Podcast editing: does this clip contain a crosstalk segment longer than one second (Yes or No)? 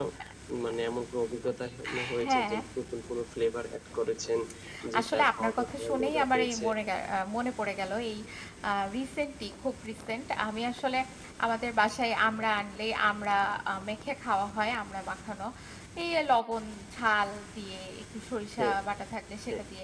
Yes